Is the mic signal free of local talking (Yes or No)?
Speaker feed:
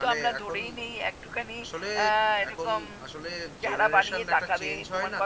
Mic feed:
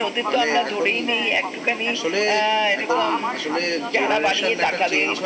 No